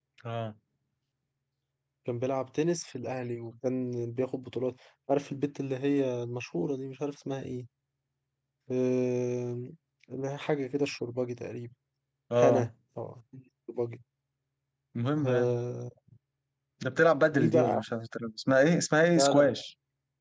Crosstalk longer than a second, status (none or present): none